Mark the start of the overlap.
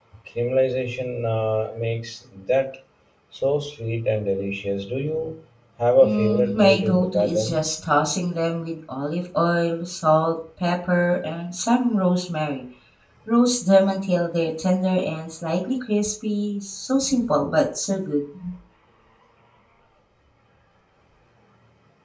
6.0 s

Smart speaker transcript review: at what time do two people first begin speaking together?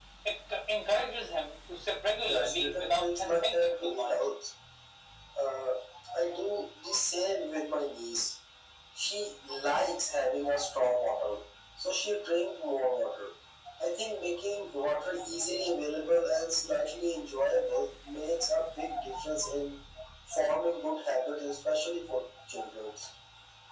2.2 s

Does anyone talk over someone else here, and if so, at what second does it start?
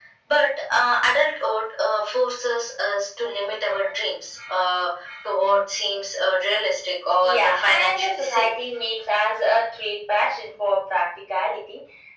7.2 s

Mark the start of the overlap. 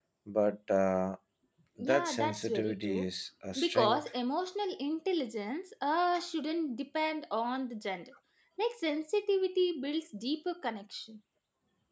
1.8 s

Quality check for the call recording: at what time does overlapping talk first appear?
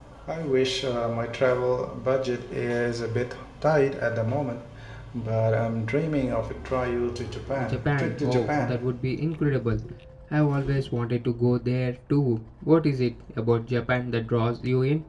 7.5 s

